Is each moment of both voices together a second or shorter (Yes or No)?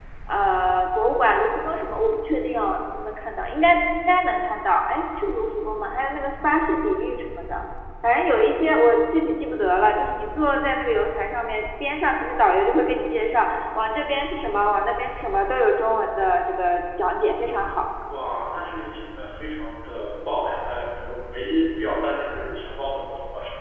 Yes